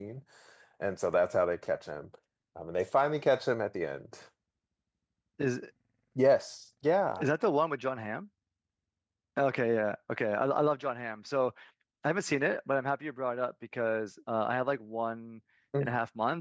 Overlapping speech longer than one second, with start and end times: none

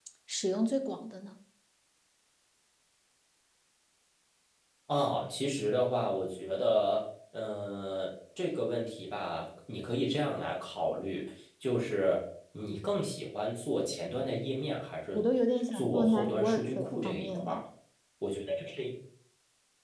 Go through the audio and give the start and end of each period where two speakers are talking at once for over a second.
15.7-17.6

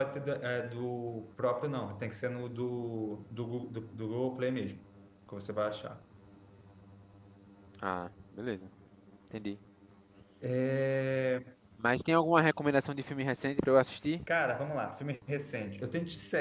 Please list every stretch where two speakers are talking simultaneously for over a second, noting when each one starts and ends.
none

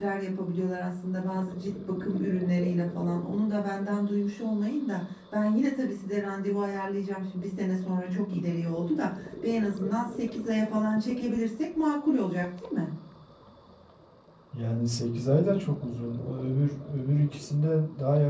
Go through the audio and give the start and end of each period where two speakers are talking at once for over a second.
none

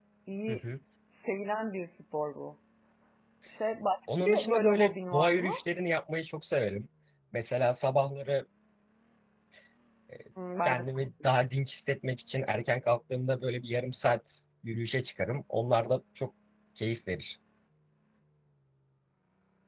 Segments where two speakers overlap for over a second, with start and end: 4.2-5.5

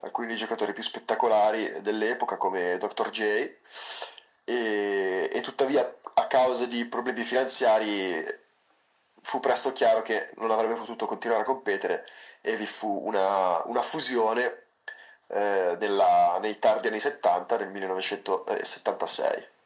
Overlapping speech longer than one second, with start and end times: none

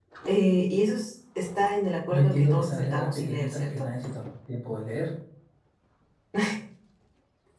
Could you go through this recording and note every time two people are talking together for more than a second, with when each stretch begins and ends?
2.1-3.9

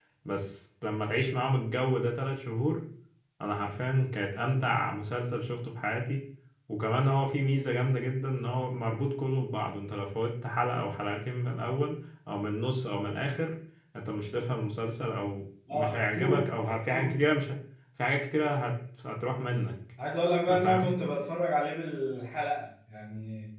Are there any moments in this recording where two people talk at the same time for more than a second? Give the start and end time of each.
15.7-17.1

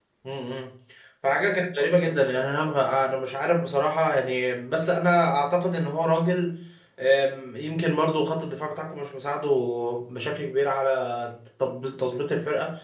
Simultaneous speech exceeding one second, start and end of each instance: none

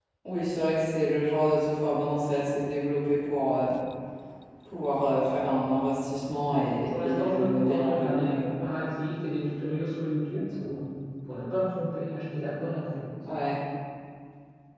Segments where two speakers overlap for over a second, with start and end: 6.5-8.5

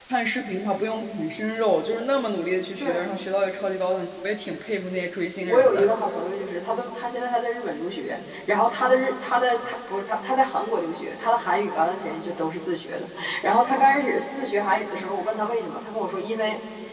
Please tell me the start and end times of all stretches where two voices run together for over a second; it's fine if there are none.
none

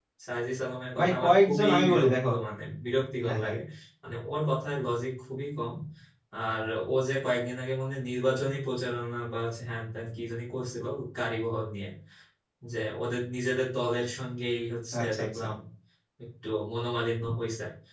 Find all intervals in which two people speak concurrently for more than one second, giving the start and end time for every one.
1.0-2.3

